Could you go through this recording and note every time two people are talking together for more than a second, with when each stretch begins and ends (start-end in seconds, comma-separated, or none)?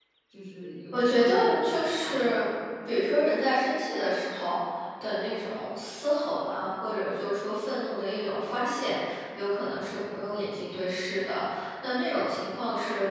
0.9-2.4